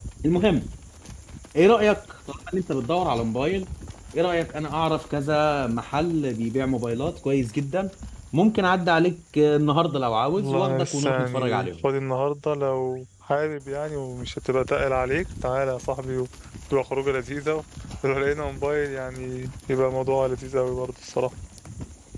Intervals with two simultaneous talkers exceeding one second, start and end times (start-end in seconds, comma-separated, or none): 10.3-11.8